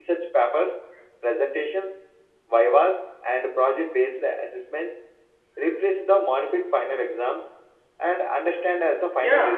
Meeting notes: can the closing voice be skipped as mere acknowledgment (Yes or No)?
No